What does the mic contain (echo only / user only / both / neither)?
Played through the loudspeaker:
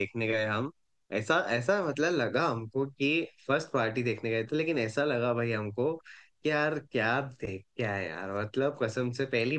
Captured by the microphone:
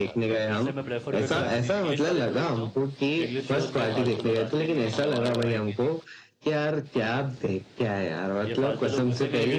both